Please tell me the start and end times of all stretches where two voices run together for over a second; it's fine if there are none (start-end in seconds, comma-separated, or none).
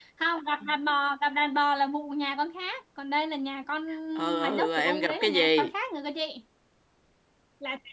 4.4-5.7